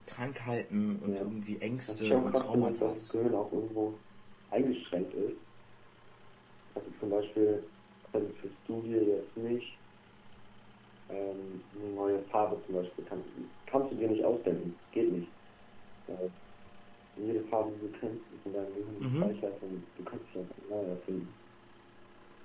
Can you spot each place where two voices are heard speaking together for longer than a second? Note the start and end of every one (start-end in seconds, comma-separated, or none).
1.9-3.1